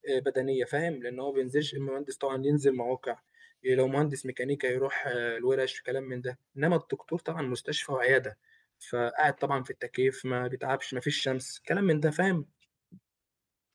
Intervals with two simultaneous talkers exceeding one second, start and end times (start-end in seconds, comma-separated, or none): none